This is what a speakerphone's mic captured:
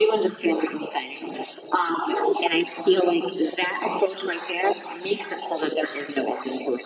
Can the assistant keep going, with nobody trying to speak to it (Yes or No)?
Yes